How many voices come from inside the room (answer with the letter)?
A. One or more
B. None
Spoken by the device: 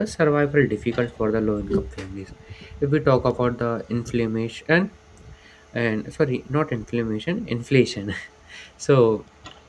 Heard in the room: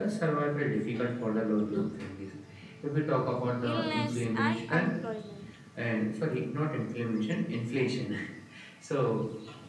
A